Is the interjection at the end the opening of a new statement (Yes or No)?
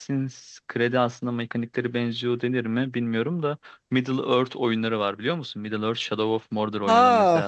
Yes